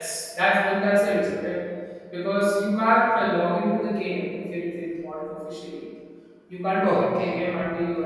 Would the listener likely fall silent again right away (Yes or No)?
Yes